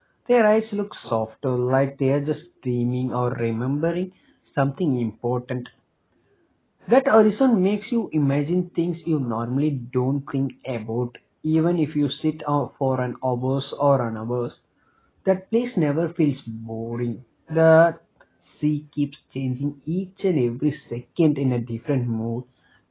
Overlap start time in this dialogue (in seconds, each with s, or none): none